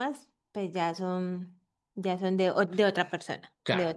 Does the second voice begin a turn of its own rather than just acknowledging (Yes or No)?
Yes